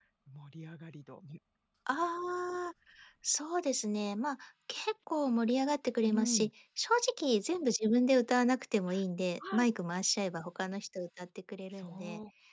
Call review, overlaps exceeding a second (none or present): none